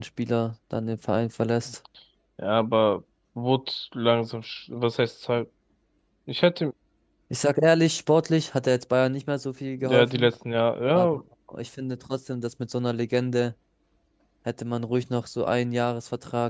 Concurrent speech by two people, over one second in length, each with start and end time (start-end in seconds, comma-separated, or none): none